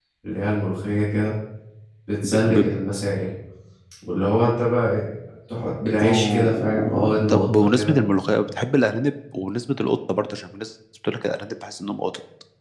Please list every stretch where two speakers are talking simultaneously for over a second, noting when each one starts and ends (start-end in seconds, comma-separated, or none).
6.0-8.1